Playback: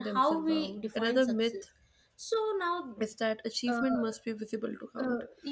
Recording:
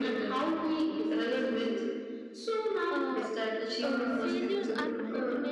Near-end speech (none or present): present